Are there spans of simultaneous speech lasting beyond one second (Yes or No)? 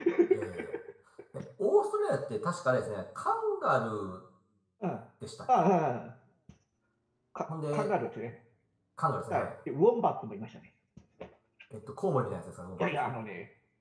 No